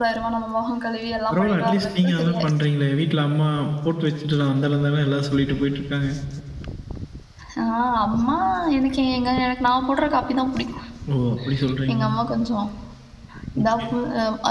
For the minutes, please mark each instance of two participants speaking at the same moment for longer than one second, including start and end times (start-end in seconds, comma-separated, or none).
1.3-2.5